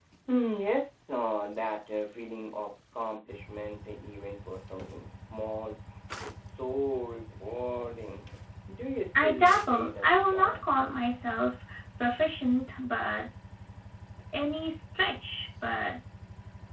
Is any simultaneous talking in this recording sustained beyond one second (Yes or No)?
Yes